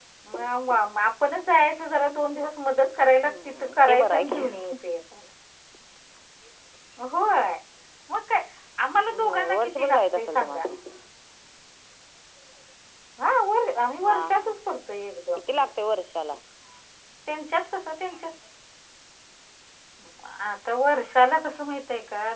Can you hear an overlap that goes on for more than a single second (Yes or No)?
Yes